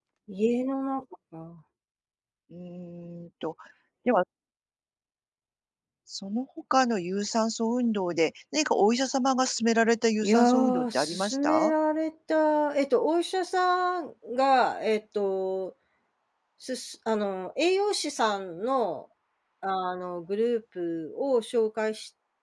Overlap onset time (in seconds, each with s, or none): 10.2 s